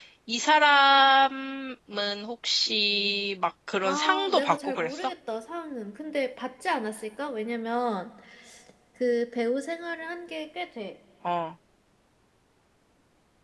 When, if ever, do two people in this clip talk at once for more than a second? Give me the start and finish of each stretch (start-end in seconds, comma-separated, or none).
3.8-5.1